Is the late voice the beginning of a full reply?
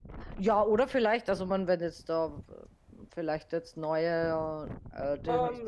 Yes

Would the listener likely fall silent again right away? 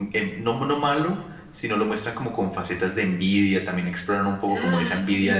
Yes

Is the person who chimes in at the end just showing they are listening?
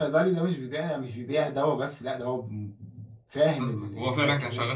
No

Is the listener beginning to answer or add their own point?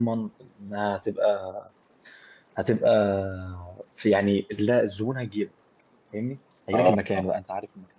No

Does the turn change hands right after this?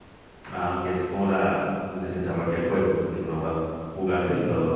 Yes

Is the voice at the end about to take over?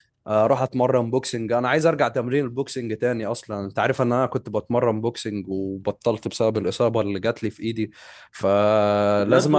Yes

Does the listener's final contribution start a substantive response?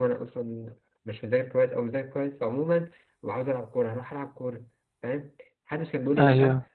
No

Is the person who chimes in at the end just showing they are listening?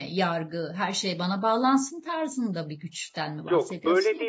No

